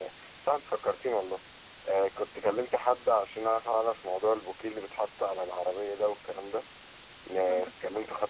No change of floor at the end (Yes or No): Yes